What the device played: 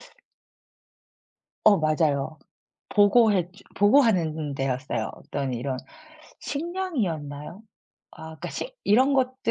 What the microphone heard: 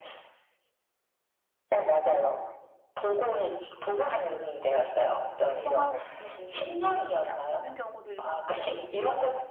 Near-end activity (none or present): present